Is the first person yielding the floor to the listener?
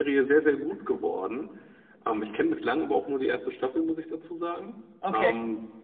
No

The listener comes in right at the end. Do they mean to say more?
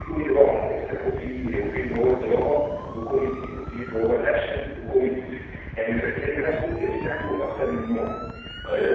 No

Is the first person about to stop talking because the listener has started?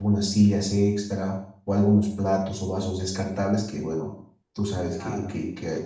No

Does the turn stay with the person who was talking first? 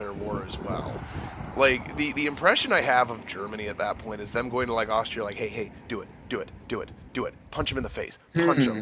No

